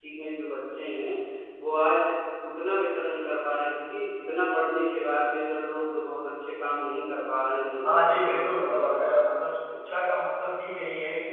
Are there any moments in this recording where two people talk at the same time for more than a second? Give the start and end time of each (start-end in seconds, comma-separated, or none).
7.8-9.1